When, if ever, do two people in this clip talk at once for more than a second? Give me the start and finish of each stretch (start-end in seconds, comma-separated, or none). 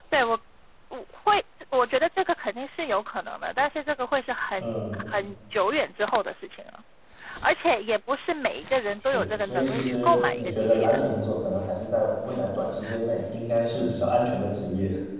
9.1-11.0